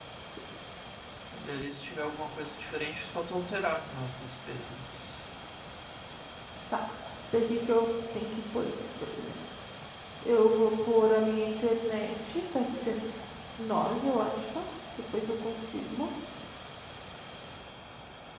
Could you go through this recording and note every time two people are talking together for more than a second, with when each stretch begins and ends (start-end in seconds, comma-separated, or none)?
none